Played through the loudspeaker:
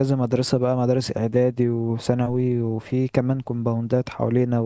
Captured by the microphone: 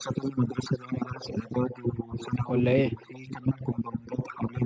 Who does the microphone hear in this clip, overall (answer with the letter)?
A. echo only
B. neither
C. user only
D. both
D